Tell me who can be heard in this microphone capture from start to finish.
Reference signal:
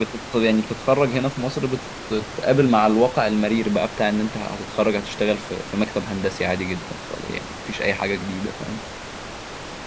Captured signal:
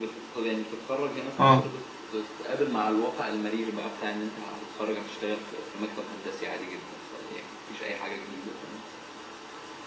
both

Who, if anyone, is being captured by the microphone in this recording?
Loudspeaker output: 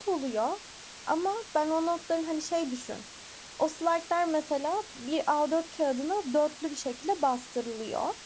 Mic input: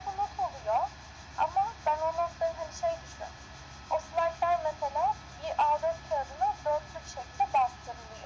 echo only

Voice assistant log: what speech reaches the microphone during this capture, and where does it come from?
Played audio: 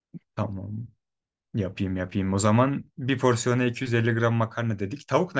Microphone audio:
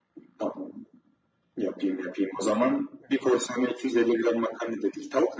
echo only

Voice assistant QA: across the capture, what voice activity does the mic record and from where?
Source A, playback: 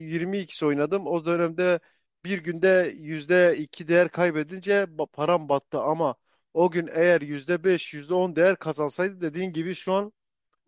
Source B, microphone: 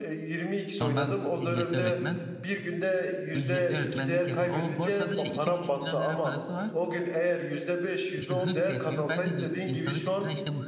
both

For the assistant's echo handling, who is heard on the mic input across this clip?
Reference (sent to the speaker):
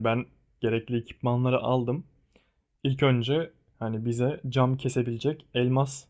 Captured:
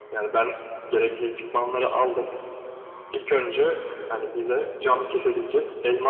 echo only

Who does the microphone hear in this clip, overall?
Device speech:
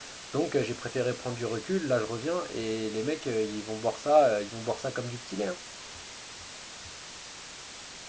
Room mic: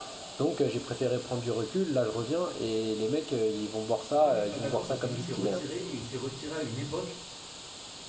both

